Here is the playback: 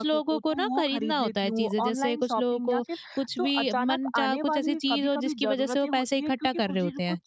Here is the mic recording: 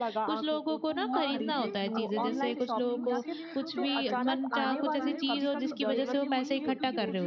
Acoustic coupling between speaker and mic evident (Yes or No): Yes